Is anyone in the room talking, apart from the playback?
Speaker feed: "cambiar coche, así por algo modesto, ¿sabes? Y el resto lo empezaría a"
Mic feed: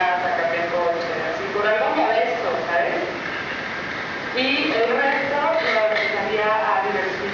No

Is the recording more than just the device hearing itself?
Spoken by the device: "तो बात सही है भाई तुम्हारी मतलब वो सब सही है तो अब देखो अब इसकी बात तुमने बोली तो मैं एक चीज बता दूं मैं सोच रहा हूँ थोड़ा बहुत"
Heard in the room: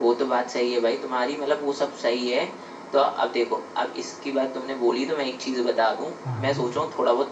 Yes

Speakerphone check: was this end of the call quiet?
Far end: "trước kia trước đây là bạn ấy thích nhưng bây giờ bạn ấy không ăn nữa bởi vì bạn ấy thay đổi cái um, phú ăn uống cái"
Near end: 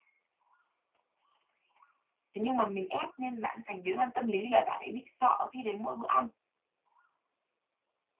No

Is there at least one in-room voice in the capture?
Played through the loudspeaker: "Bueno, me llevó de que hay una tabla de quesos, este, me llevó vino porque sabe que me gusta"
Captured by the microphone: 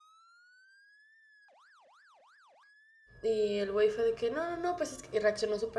Yes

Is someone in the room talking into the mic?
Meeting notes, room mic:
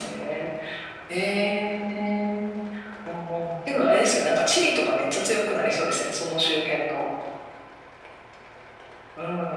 No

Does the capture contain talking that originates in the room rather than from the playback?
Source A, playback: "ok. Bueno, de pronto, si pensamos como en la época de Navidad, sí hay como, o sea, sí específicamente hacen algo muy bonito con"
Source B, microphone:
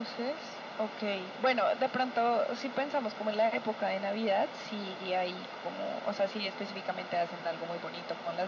No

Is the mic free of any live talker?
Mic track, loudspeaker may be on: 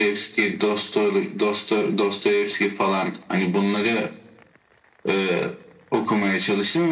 Yes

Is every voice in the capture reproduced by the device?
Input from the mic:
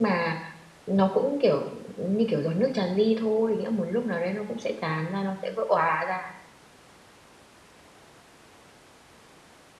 No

